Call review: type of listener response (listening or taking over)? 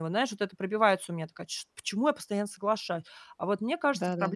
listening